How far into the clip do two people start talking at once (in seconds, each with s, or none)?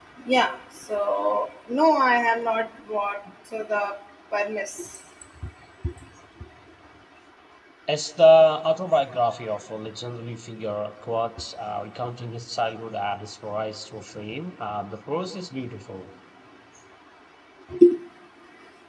none